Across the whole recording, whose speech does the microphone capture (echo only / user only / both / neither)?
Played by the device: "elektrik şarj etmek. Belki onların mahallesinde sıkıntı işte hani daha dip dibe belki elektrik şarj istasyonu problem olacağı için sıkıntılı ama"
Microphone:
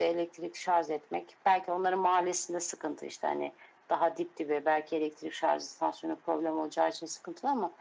echo only